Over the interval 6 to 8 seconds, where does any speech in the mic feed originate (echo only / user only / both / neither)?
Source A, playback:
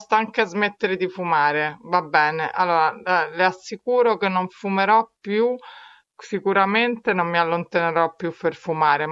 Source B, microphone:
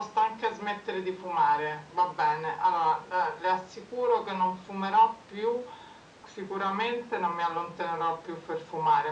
echo only